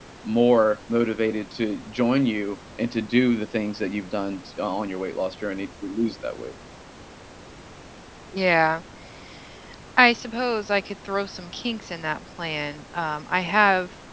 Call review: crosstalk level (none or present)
none